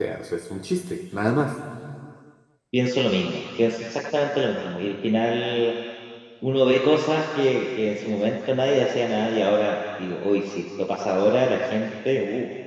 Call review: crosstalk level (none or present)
none